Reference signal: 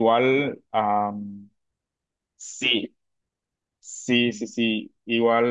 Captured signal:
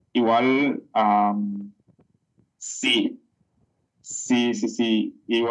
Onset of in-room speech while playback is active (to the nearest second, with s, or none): none